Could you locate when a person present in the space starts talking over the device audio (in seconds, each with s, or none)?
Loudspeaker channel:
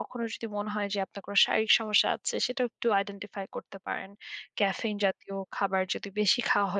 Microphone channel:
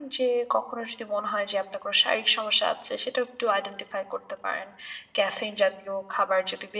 none